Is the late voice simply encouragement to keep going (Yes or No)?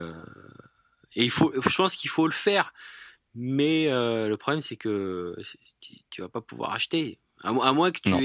Yes